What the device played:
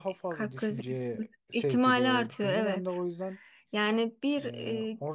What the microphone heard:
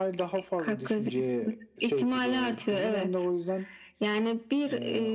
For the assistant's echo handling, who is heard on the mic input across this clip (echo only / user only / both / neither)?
echo only